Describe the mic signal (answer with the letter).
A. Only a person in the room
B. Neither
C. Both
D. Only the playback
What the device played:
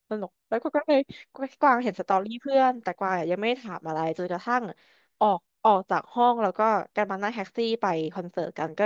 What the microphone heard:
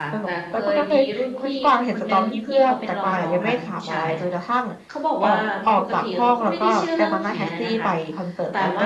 C